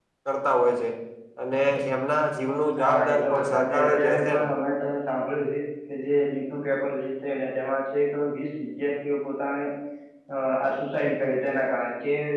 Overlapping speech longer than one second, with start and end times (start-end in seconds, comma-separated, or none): 2.8-4.5